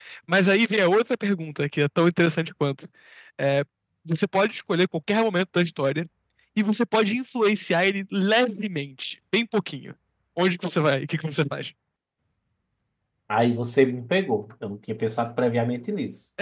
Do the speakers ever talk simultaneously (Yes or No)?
No